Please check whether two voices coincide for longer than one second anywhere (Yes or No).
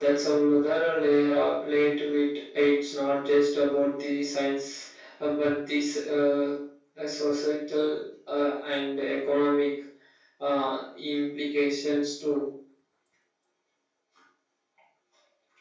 No